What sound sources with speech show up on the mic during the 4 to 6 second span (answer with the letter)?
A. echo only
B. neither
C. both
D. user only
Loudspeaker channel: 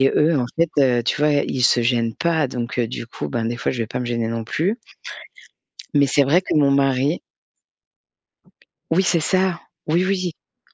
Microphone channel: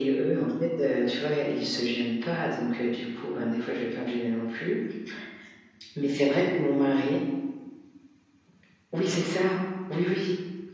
A